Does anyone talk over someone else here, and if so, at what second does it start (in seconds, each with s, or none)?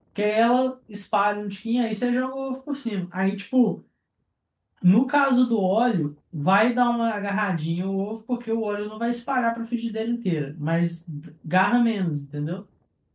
none